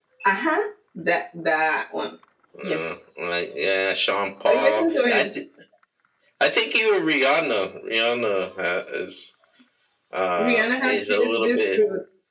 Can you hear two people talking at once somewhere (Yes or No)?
Yes